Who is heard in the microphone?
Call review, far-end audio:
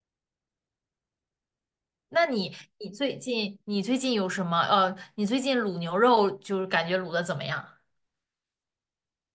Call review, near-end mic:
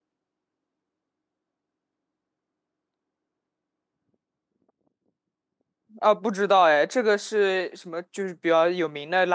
user only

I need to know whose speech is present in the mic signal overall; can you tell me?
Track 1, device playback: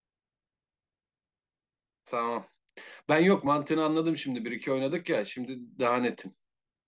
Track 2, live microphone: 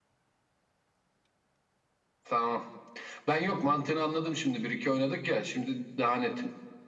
echo only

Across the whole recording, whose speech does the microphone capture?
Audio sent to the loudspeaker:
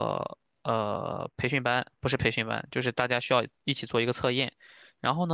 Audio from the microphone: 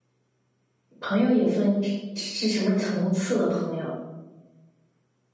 user only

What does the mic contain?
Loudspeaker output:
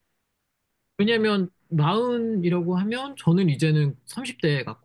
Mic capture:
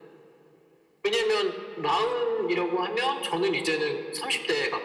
echo only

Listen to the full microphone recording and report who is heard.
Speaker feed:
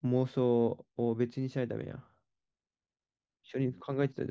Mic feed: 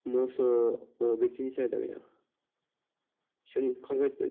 echo only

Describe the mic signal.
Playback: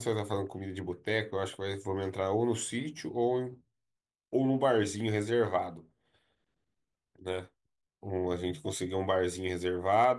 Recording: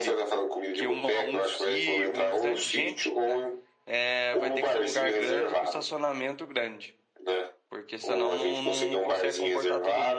both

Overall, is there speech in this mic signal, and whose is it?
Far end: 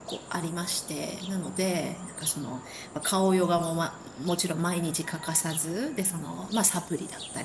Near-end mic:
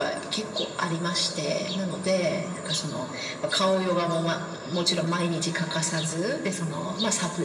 echo only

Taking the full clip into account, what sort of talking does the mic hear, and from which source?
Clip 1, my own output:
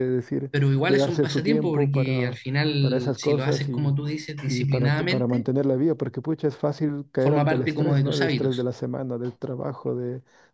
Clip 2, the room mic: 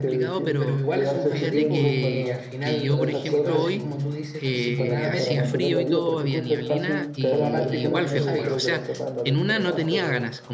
both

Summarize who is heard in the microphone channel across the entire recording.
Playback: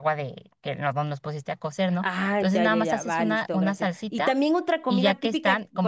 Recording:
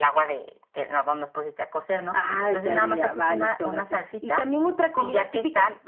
echo only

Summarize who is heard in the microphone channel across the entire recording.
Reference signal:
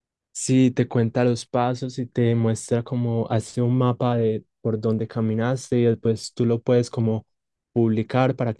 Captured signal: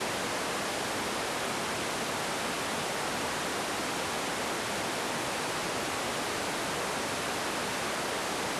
neither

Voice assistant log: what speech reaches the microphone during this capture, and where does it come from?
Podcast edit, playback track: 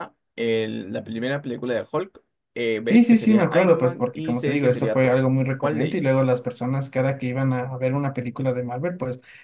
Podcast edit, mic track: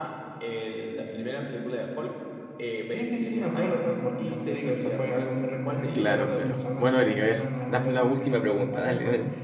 both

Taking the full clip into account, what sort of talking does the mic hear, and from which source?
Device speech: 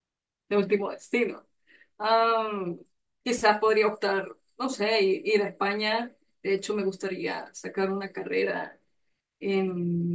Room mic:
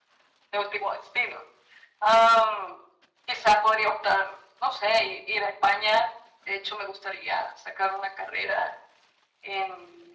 echo only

